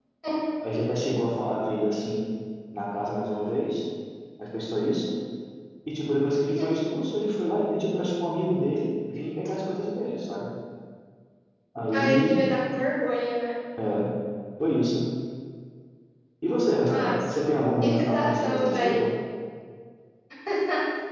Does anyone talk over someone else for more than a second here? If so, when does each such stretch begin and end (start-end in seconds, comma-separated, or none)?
17.8-19.0